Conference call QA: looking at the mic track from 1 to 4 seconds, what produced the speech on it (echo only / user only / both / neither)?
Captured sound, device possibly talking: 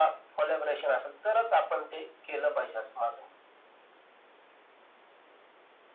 echo only